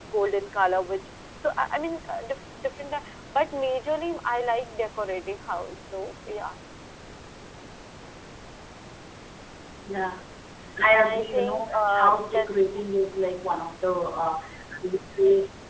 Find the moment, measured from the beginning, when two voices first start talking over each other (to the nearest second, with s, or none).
11 s